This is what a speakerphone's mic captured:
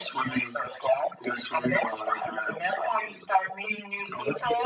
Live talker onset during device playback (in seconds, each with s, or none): none